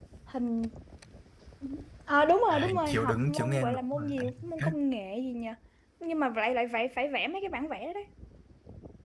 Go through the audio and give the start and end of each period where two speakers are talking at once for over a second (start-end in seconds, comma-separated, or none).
2.5-4.7